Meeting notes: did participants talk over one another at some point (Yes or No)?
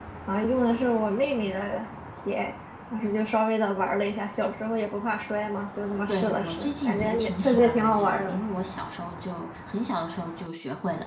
Yes